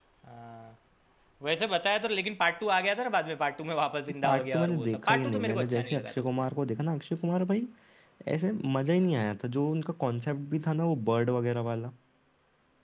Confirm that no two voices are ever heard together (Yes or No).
No